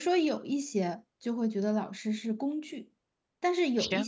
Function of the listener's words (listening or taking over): listening